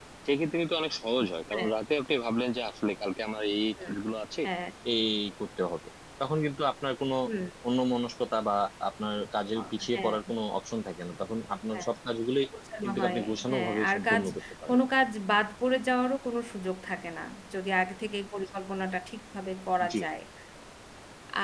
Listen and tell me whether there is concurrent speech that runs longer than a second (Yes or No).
Yes